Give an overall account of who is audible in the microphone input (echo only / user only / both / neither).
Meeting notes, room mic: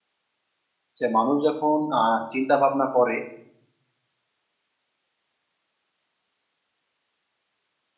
user only